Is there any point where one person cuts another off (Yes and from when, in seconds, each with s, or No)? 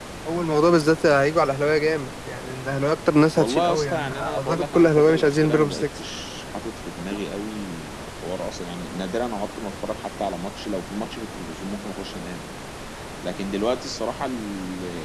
Yes, from 3.4 s